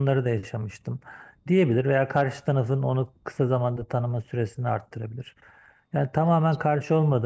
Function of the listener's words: listening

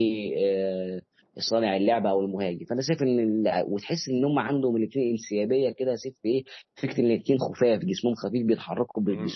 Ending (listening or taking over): taking over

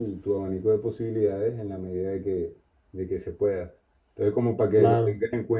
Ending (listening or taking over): listening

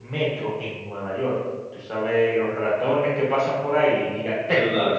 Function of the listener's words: listening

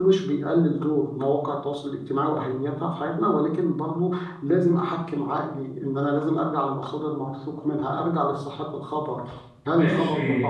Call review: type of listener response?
taking over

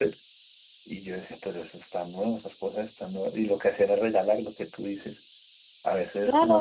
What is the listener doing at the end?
listening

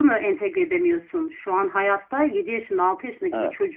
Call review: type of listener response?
listening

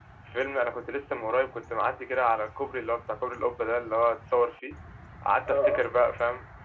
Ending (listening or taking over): listening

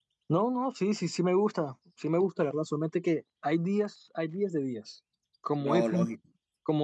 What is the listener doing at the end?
listening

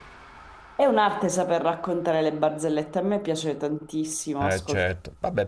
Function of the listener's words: taking over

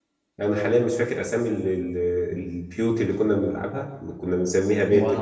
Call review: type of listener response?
listening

